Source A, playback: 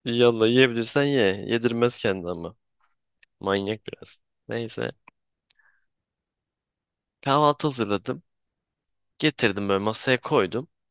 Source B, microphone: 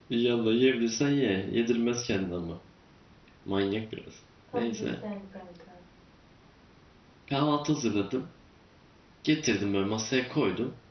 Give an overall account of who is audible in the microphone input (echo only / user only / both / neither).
both